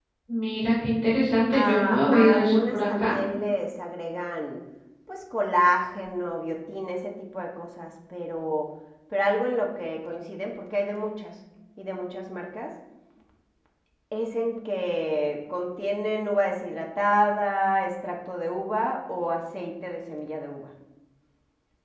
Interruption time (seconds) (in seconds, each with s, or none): 1.5 s